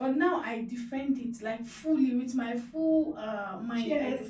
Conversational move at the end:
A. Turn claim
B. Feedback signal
B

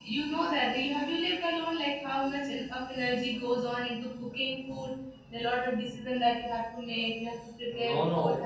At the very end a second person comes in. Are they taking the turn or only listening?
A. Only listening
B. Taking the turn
B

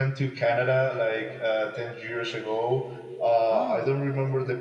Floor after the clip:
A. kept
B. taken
A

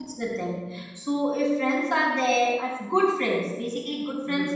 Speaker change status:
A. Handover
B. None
B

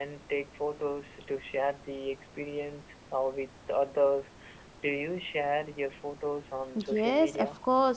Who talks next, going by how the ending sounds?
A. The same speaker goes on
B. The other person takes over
B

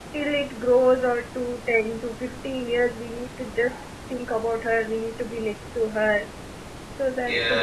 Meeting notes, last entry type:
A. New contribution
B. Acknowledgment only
A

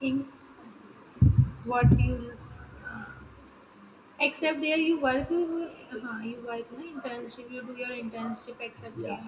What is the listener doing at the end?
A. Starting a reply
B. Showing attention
A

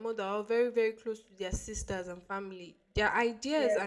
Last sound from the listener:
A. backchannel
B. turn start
B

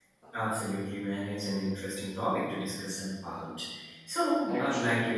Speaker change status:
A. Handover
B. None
B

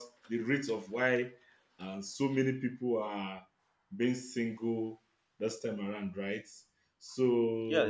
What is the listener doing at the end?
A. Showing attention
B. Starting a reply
B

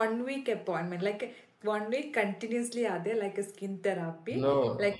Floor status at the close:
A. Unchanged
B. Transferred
A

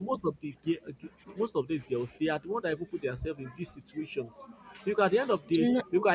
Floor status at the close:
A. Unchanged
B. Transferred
A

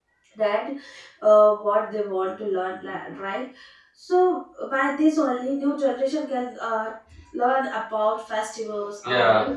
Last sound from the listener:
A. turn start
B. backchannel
B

